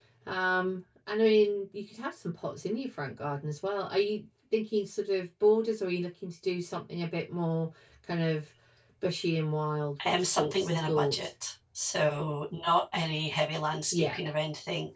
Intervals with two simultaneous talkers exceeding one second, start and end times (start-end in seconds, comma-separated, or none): 10.1-11.3